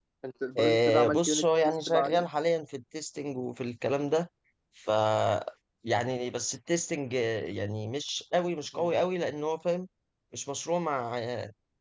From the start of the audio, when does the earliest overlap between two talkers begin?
1 s

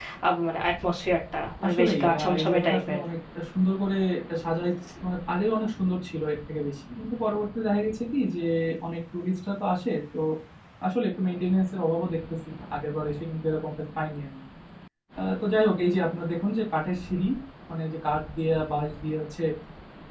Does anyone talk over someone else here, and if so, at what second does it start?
2 s

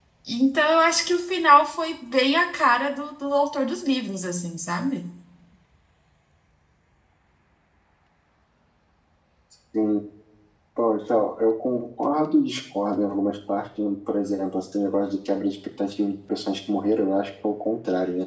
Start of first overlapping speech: none

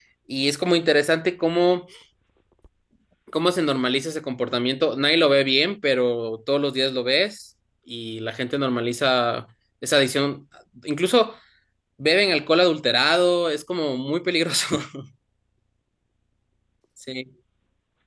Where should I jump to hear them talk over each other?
none

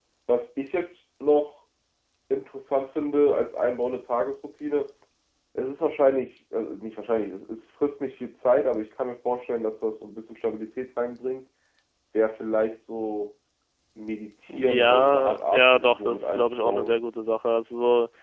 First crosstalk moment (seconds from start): 15 s

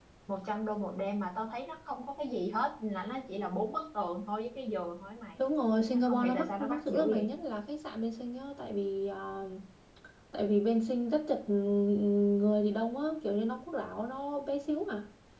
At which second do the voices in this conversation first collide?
6 s

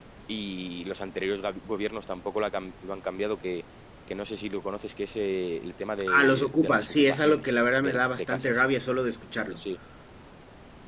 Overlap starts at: 6 s

